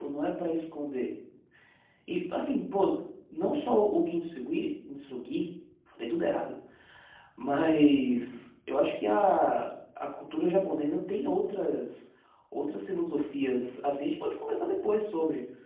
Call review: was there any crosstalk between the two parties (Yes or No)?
No